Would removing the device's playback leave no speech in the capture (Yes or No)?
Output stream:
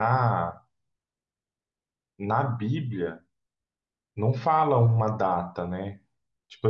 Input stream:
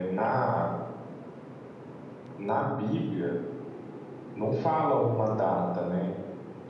Yes